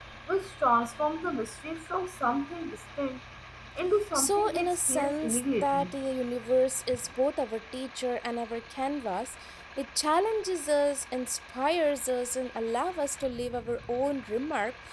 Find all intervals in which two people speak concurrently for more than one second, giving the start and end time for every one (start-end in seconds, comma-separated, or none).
4.1-5.9